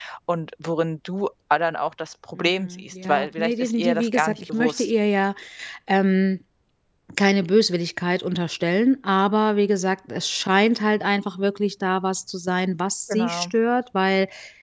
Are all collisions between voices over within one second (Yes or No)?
No